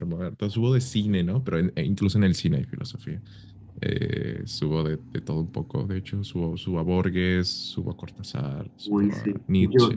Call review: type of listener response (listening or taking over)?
taking over